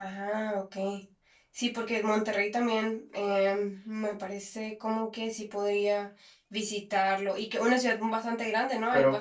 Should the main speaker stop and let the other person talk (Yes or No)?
Yes